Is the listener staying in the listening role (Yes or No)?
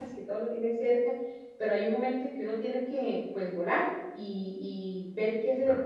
Yes